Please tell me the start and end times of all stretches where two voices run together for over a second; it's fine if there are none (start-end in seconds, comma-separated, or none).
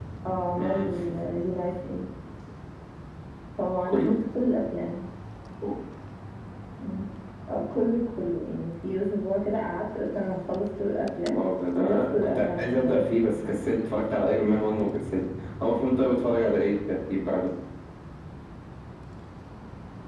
11.8-13.1